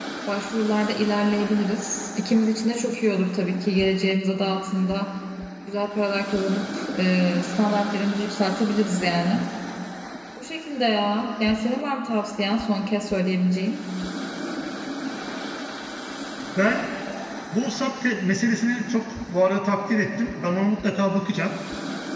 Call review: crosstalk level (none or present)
none